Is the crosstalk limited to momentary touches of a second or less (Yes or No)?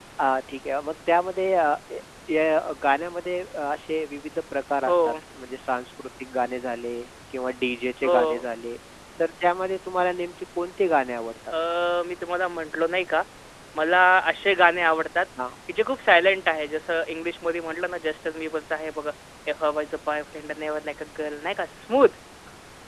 Yes